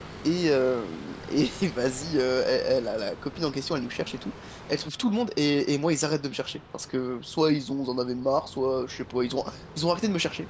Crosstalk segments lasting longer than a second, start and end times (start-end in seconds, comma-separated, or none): none